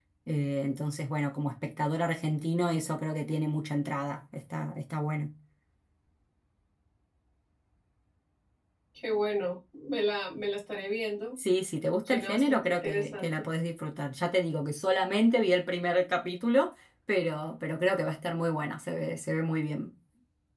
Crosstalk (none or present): present